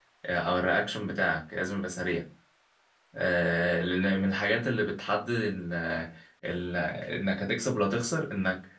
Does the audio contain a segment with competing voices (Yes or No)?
No